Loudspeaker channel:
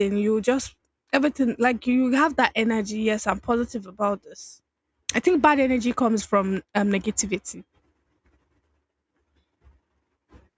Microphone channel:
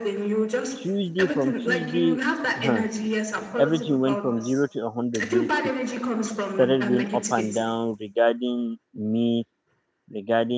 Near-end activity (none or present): present